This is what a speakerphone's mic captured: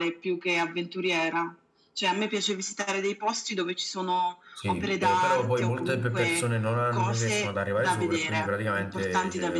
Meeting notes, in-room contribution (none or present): present